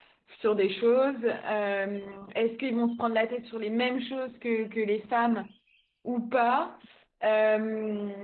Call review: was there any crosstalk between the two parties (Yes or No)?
No